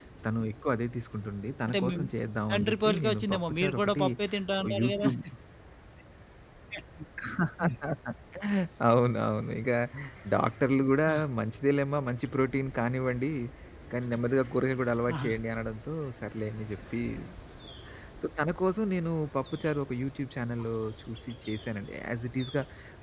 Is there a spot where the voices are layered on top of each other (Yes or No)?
Yes